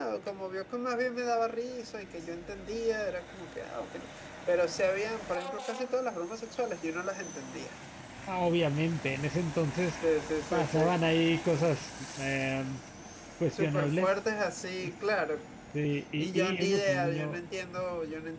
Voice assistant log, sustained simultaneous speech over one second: present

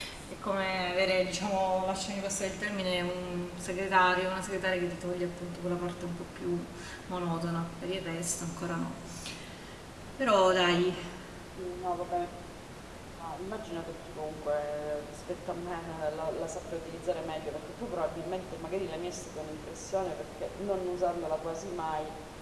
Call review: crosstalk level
none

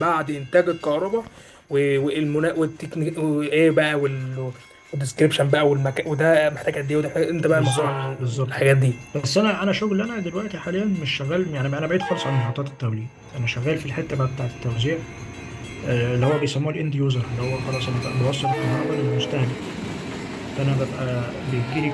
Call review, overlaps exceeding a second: present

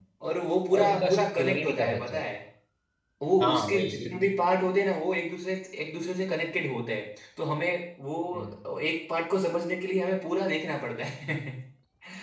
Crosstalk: present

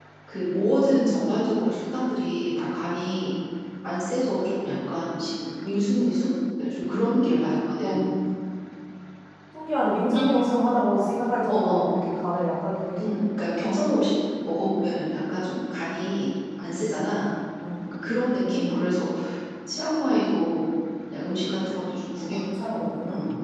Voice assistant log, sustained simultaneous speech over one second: none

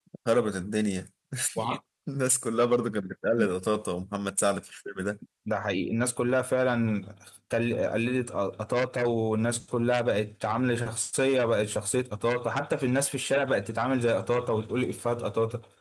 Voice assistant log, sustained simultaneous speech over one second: none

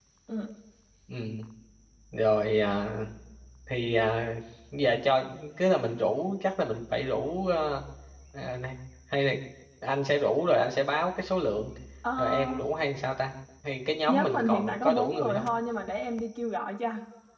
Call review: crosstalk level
present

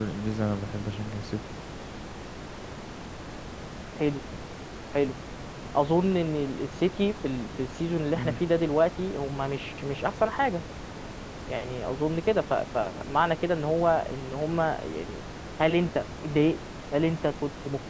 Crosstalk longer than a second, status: none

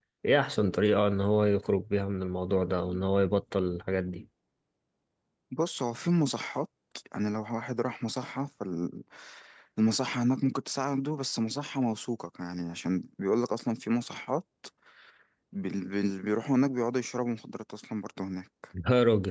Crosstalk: none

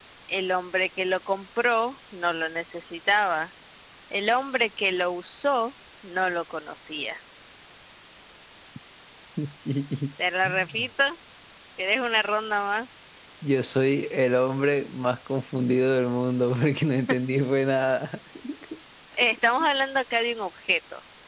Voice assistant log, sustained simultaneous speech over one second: none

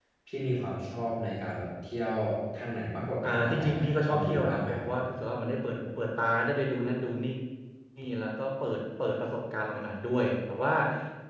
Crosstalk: present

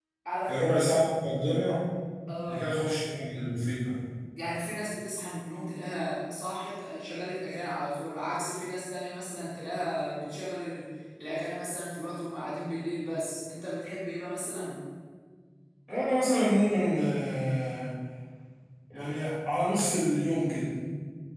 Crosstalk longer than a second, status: none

